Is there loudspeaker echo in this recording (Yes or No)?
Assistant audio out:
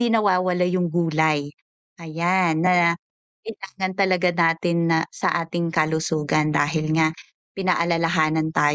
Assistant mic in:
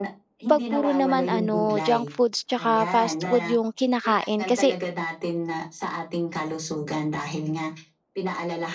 Yes